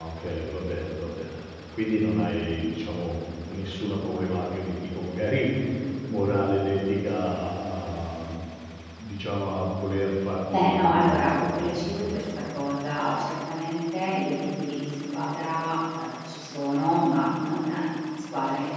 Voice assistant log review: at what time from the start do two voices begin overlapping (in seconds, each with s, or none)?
10.5 s